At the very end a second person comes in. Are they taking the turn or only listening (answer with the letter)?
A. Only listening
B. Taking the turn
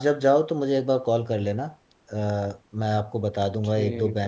A